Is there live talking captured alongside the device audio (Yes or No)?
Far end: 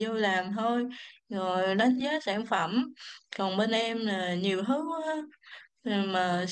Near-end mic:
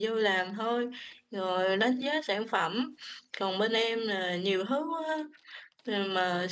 No